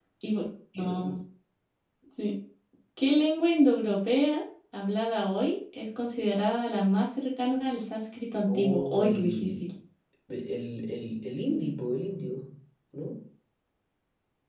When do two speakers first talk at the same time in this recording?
8.5 s

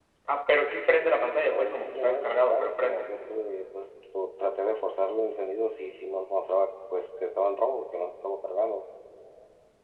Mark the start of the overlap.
1.5 s

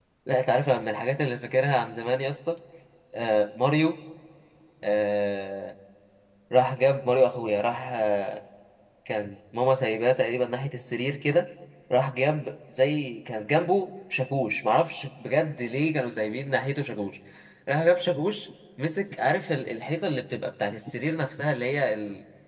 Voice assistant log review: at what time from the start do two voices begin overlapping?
none

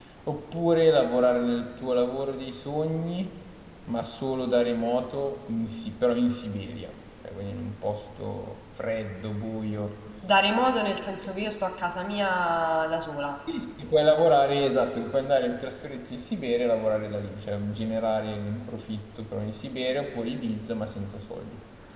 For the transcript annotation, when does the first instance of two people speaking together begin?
none

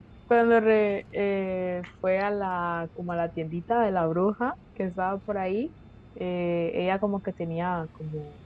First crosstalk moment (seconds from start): none

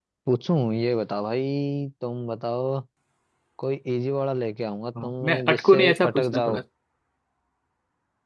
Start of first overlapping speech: 5.0 s

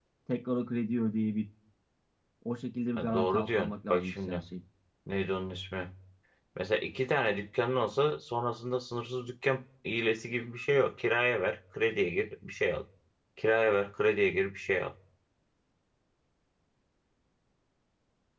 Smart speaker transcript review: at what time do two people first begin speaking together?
3.0 s

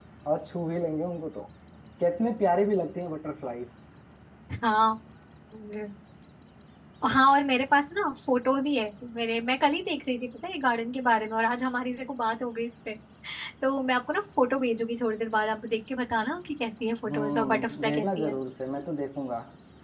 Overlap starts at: 17.1 s

